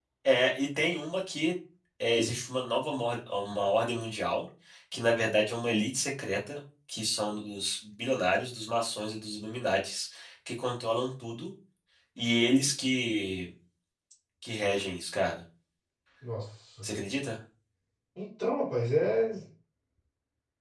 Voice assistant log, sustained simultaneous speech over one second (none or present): none